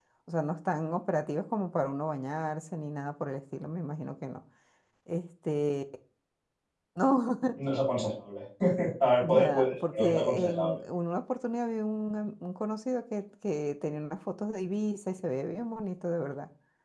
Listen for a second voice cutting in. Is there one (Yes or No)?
Yes